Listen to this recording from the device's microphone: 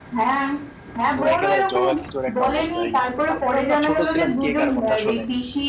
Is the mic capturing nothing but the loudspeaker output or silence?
No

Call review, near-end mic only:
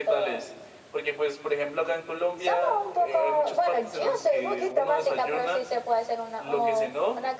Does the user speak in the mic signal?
No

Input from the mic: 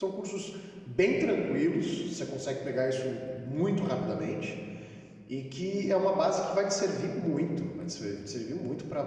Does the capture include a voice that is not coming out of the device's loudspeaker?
Yes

